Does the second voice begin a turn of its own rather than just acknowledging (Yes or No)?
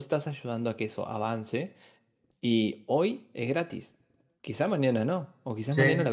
No